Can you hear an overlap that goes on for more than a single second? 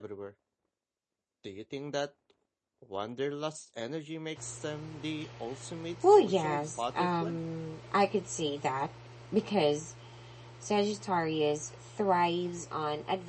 Yes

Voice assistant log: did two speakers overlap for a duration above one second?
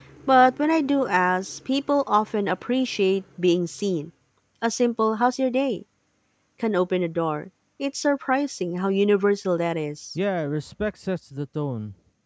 No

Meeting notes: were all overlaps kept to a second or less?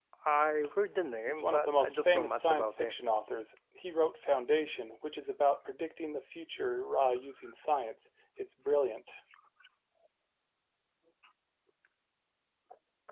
No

